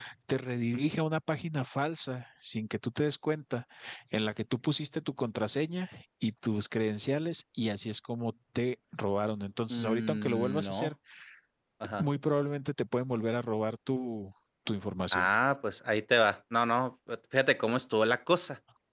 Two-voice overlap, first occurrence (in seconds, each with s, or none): 9.7 s